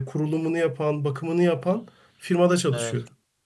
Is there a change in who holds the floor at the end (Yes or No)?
Yes